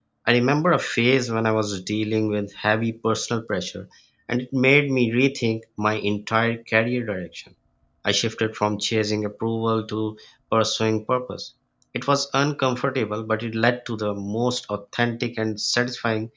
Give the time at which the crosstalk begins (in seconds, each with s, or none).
none